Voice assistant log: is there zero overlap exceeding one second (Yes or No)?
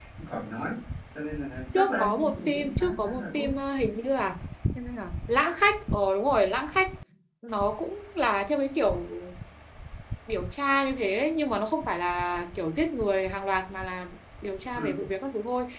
No